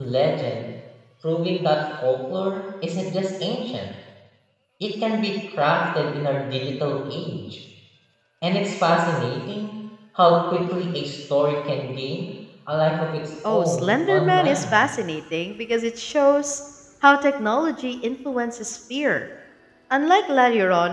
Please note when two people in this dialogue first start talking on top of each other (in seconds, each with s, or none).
13.4 s